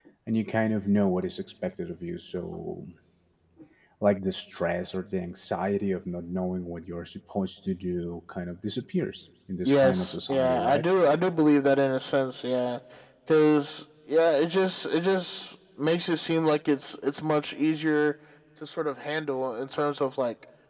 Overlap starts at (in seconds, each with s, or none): 9.6 s